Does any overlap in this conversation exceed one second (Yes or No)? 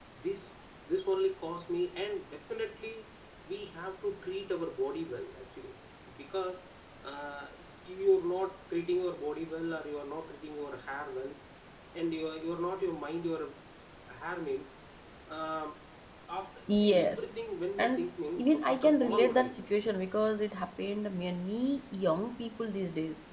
Yes